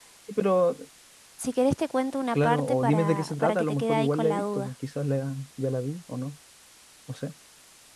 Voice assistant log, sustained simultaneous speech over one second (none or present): present